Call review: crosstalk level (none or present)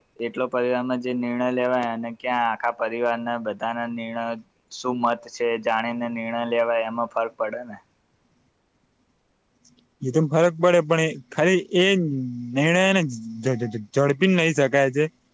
none